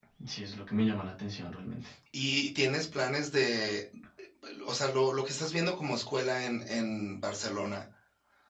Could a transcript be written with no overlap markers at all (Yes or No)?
Yes